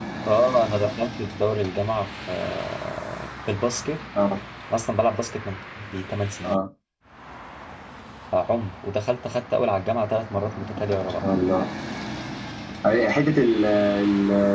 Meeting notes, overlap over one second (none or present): none